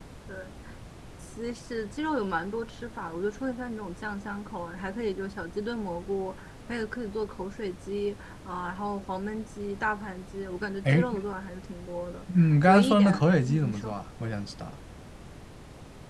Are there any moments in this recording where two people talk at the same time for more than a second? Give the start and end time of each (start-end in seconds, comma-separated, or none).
12.7-13.9